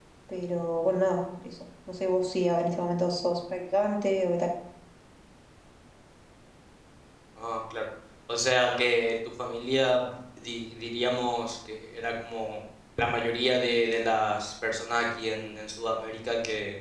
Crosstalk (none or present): none